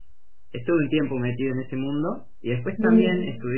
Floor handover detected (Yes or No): No